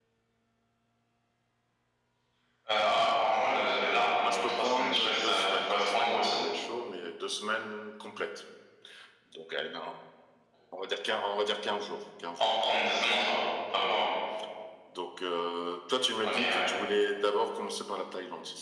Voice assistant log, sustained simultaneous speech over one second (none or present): present